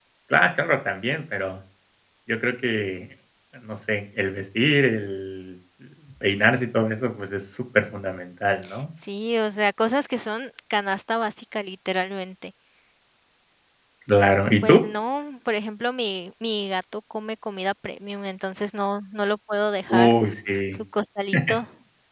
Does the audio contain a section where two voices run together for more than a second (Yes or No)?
No